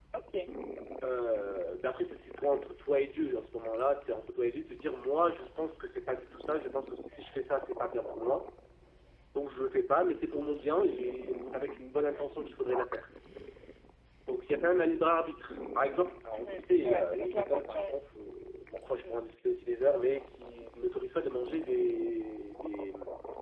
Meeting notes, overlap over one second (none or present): present